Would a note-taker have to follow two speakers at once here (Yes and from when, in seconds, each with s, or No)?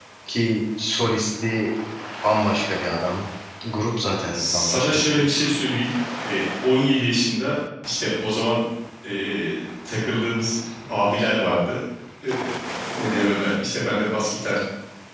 Yes, from 4.1 s